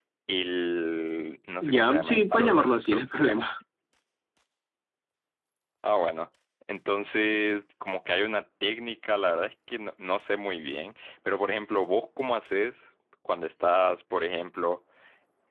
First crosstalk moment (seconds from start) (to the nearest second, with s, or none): 2 s